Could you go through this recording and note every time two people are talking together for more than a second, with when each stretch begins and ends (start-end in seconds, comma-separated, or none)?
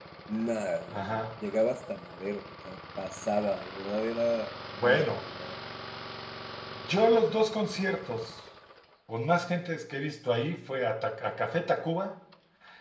none